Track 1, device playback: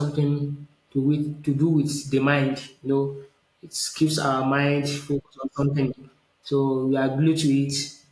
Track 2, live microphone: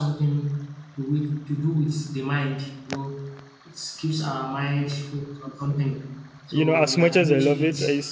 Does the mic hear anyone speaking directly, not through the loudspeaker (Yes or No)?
Yes